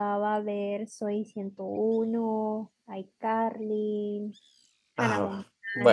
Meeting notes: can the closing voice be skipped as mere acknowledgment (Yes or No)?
No